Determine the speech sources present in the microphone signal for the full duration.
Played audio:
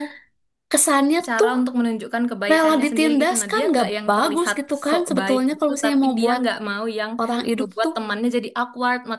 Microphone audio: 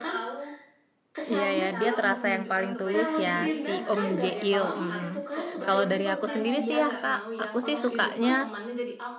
both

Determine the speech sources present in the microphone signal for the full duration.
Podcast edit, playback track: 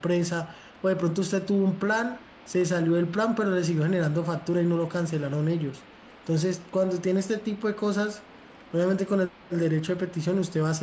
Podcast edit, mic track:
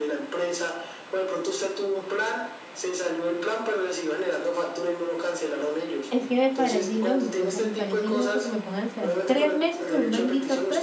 both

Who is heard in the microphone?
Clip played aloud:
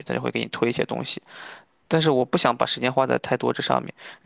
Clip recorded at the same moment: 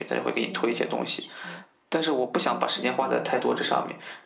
both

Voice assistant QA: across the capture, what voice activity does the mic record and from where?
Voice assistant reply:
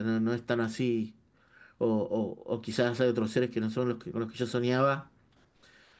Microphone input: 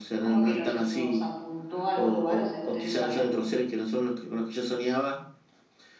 both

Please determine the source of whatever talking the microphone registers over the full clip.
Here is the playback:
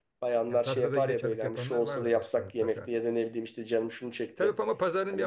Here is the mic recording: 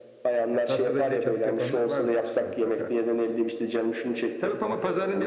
echo only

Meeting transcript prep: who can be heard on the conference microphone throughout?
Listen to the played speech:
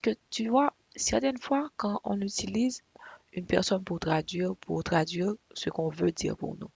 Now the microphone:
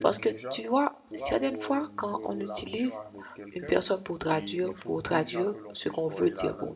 both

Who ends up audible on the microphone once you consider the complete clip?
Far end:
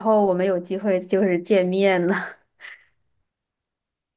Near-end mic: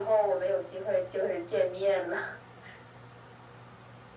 echo only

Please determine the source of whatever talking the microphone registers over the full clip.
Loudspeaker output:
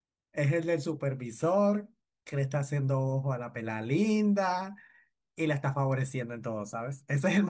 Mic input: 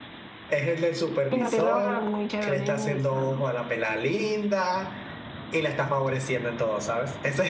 both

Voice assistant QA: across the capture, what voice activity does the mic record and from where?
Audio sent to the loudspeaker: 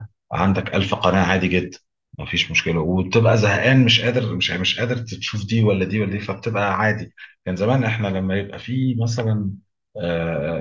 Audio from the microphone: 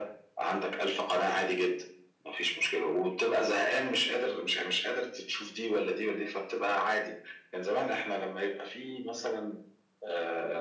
echo only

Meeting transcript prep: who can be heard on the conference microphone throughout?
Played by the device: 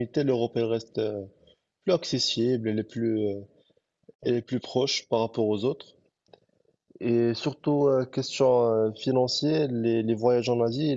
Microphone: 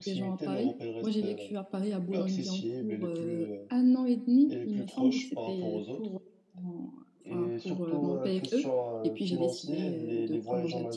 both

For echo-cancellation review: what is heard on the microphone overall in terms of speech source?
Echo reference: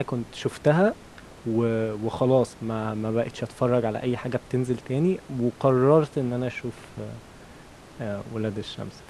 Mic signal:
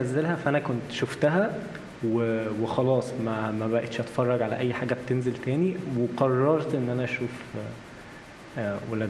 echo only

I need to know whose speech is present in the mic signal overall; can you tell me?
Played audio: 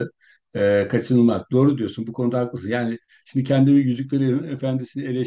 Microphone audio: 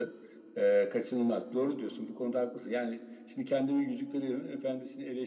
echo only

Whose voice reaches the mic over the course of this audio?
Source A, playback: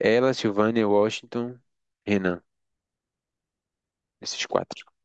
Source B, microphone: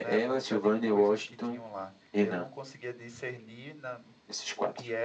both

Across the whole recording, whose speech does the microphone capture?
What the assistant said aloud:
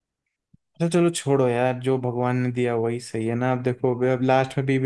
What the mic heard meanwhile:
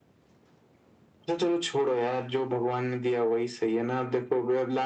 echo only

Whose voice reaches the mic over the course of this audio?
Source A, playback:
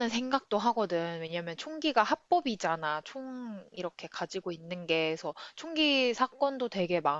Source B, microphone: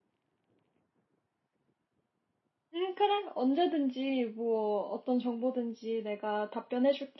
user only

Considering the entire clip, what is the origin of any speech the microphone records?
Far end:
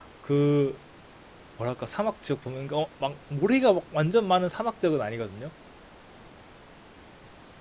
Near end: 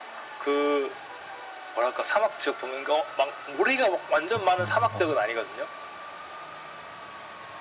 both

